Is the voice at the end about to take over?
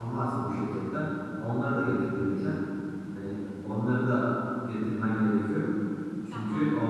No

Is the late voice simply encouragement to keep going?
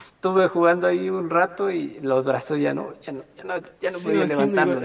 No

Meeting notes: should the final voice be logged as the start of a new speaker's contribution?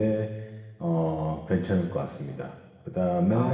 No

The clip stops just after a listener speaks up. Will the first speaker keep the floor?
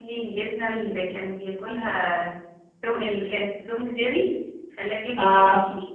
Yes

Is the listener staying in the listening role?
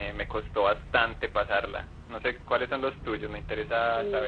No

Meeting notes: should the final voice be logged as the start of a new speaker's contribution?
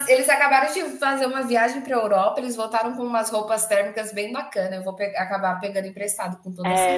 Yes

